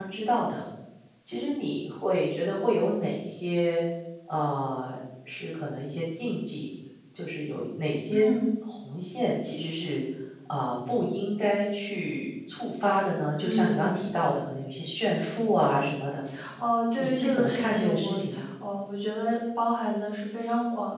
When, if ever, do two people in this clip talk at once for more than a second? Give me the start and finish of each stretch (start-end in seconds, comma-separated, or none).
17.0-18.2